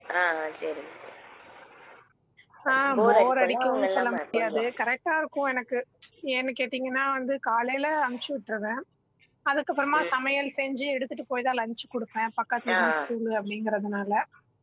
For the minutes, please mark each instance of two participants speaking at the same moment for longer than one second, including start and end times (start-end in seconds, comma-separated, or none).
3.0-4.6